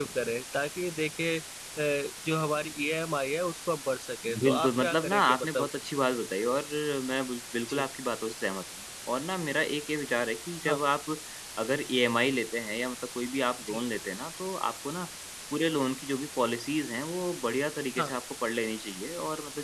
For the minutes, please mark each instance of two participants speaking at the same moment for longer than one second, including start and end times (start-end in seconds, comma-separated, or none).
4.4-5.7